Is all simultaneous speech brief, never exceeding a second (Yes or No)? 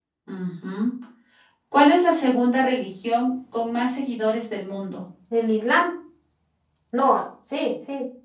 Yes